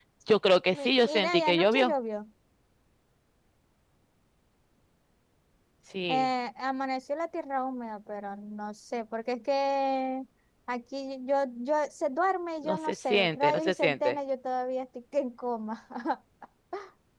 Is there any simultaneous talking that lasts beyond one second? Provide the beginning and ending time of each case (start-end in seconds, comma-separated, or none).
0.7-1.9, 12.6-14.2